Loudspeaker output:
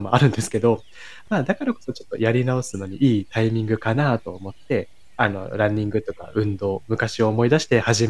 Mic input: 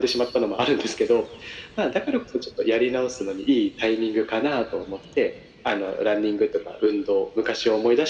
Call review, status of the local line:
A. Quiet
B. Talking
A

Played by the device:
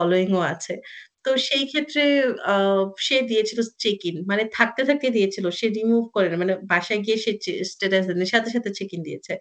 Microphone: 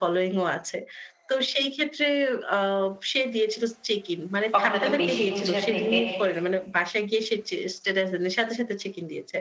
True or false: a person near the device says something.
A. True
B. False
A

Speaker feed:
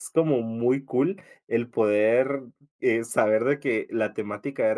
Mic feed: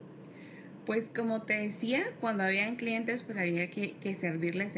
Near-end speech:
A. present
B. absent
A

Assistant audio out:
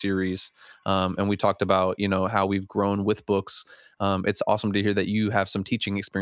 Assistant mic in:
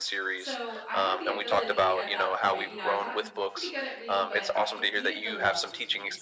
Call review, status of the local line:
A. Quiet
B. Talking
B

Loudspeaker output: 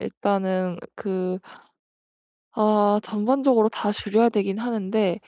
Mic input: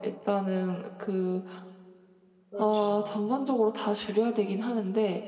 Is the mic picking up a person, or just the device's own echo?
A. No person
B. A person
B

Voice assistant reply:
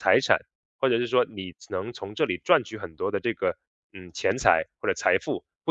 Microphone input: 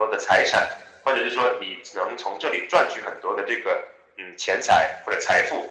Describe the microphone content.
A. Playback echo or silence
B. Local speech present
A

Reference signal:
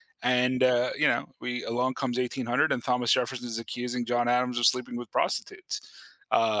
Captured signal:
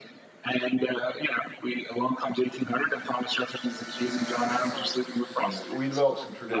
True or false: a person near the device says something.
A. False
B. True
B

